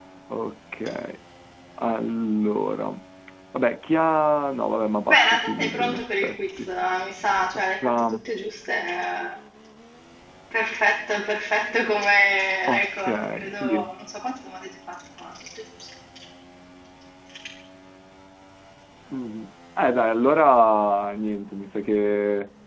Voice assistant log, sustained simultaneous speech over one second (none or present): present